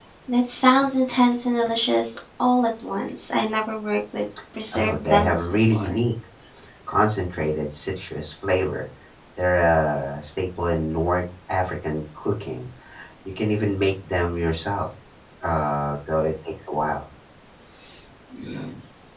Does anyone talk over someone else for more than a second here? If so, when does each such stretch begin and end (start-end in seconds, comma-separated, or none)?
4.7-6.0